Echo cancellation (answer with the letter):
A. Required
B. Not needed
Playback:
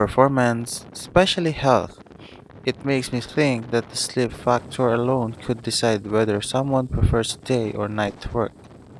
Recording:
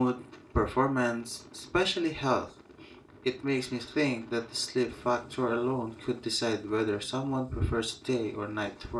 A